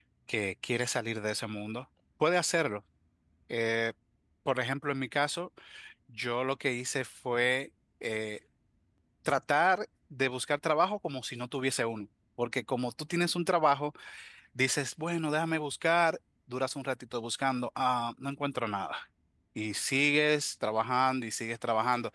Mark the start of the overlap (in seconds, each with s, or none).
none